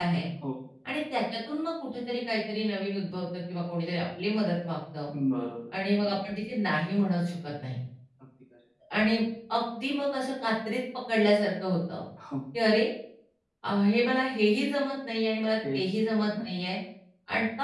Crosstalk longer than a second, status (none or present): none